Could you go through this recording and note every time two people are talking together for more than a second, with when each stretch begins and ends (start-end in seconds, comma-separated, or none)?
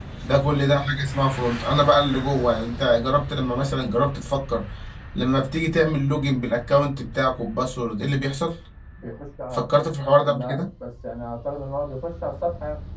none